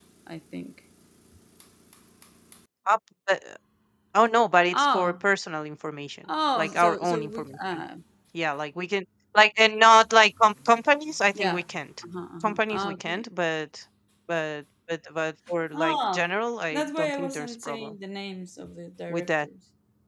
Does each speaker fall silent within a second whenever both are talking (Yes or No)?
No